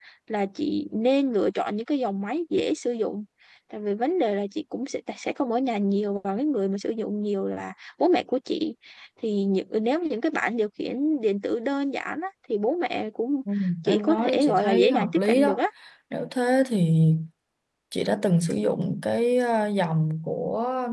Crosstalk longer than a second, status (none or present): present